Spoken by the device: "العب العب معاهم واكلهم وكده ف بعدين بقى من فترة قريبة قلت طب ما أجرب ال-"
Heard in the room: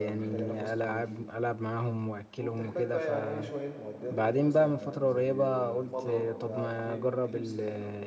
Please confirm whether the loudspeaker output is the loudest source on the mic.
Yes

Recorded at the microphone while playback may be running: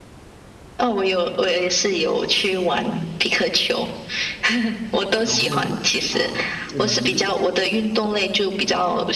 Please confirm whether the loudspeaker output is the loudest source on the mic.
Yes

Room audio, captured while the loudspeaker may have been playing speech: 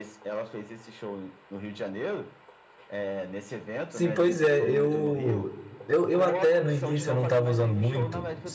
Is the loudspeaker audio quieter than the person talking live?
Yes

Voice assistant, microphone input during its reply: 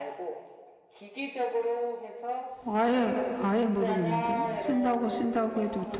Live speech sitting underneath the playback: No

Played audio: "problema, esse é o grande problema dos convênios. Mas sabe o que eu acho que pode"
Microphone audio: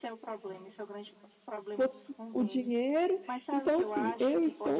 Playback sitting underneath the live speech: Yes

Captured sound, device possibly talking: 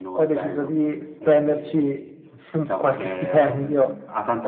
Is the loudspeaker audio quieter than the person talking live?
No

